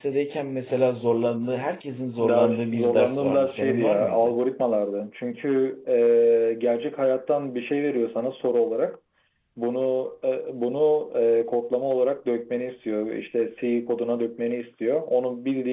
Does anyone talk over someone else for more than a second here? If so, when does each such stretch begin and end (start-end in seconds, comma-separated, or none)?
2.2-4.3